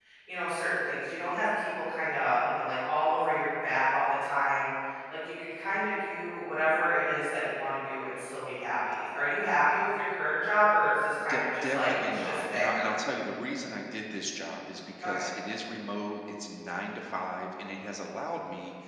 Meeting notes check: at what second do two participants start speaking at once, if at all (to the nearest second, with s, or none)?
11 s